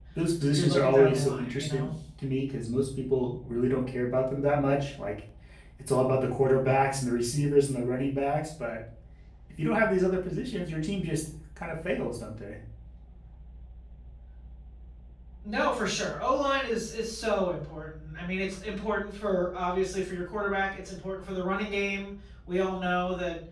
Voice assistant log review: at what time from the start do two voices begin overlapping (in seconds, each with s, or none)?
0.6 s